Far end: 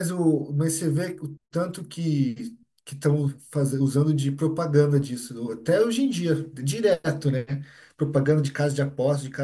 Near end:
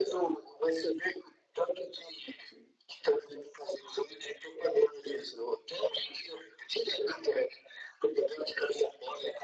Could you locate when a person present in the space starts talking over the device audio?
none

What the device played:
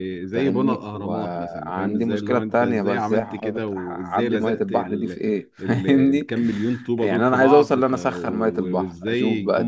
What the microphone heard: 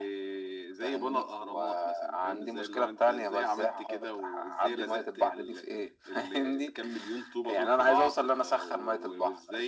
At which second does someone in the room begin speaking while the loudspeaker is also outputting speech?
none

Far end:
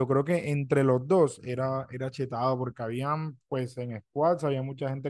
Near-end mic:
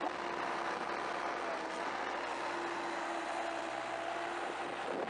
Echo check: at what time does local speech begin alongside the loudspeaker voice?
none

